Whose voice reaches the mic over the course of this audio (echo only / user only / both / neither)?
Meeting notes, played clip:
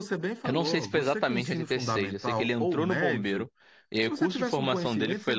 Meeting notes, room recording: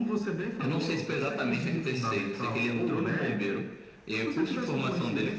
echo only